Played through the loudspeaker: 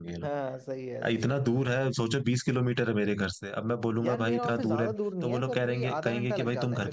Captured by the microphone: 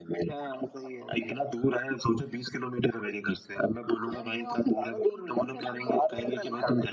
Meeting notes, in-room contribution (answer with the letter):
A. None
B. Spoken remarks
A